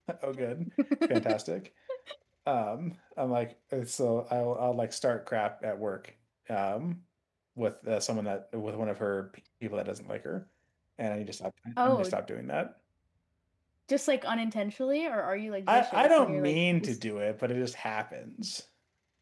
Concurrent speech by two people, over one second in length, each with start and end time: 15.7-17.0

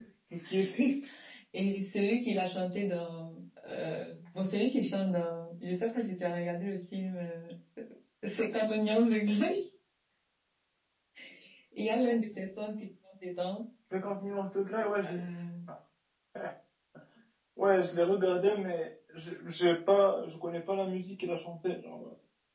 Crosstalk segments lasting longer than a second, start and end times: none

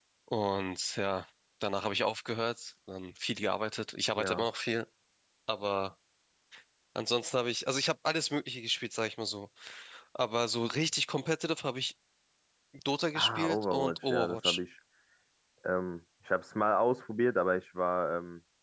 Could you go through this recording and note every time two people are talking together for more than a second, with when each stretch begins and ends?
13.2-14.6

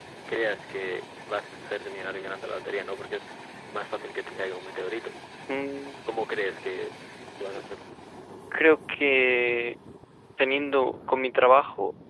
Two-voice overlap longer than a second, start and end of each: none

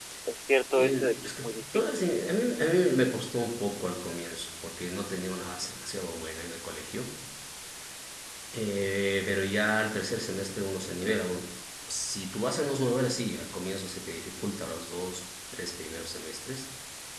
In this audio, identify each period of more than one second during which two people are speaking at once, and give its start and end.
0.7-2.1

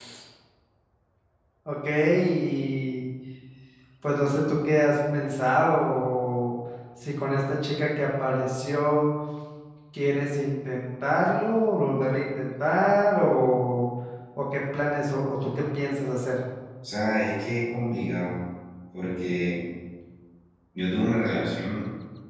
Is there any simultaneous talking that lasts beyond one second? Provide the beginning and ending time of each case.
none

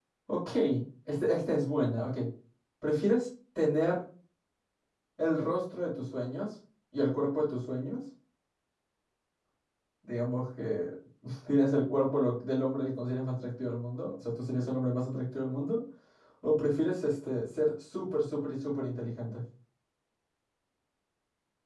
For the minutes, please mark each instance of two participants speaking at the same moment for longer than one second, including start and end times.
none

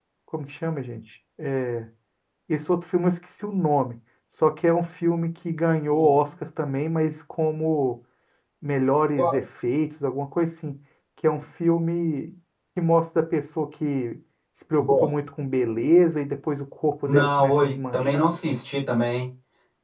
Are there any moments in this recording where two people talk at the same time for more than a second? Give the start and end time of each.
17.1-18.3

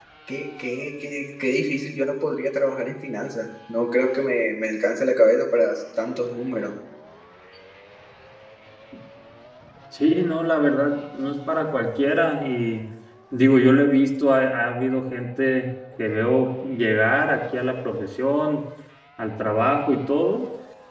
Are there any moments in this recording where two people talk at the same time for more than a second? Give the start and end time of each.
none

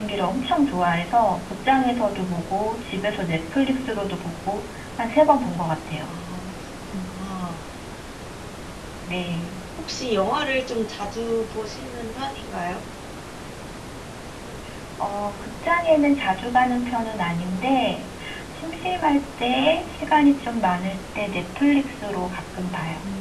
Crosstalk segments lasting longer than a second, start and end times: none

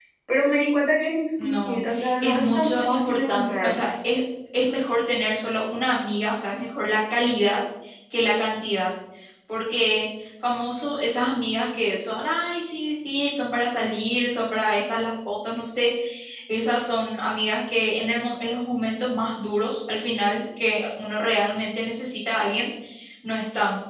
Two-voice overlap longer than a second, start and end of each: 1.4-3.8

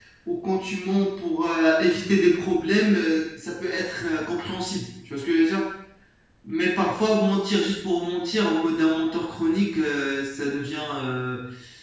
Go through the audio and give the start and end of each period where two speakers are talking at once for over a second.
none

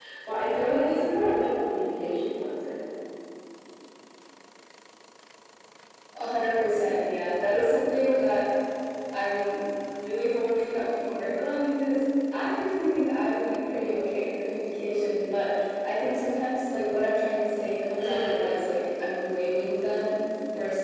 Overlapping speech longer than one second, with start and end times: none

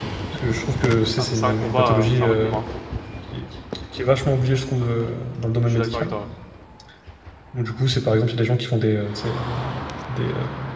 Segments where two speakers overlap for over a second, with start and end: 1.2-2.6

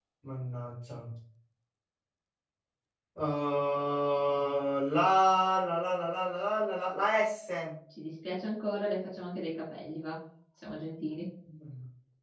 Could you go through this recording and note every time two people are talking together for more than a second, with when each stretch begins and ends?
none

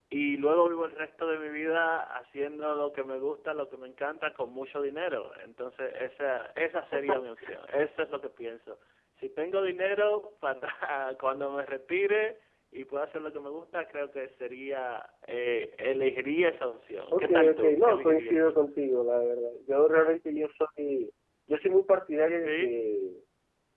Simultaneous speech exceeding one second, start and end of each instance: 17.1-18.6

